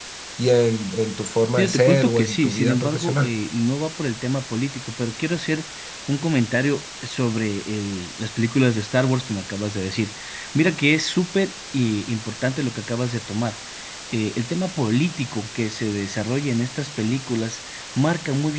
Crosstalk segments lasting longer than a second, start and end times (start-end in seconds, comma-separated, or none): 1.6-3.3